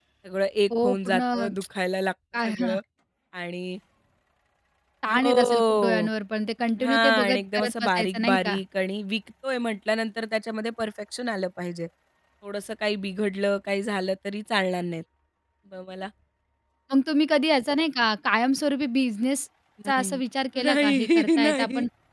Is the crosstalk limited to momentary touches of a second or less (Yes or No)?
No